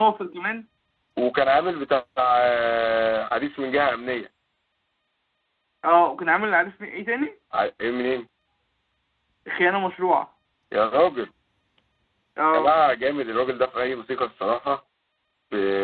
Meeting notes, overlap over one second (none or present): none